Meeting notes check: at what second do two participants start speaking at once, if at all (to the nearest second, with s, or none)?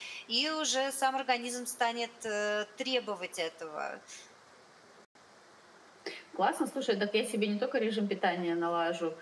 none